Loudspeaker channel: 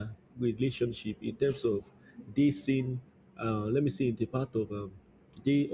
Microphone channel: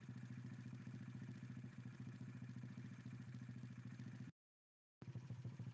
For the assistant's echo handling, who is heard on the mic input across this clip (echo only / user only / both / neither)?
neither